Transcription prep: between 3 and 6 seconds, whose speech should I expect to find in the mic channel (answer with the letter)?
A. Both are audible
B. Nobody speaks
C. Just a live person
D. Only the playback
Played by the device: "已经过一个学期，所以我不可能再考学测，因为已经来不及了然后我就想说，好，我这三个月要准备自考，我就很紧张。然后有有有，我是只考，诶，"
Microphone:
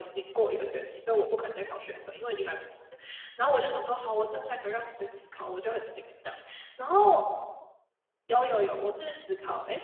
D